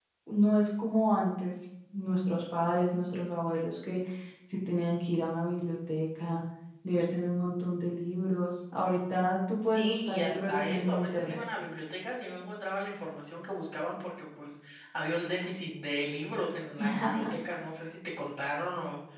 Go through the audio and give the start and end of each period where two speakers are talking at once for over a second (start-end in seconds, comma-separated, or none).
9.7-11.4